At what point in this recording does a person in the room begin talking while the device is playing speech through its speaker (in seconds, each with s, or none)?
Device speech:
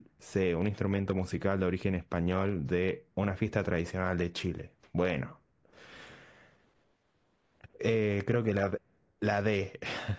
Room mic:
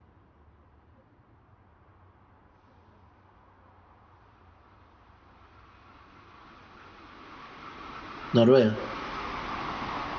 8.3 s